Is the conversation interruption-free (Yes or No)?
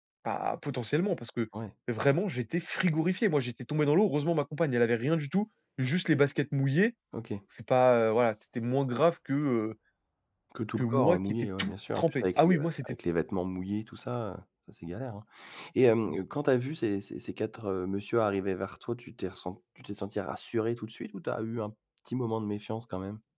No